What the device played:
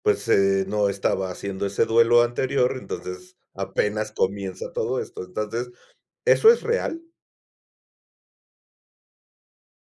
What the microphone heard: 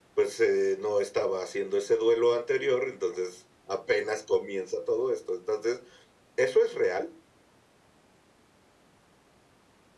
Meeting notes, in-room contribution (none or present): none